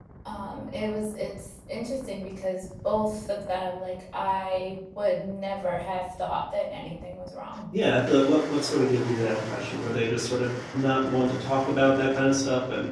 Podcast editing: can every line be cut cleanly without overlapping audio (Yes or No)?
Yes